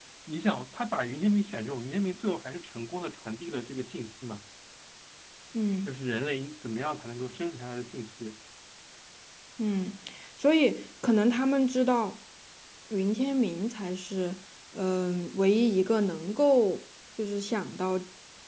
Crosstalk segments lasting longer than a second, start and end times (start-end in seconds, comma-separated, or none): none